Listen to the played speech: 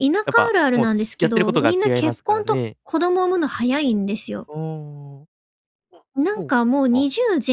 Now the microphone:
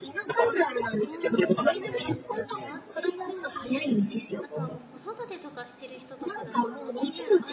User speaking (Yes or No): Yes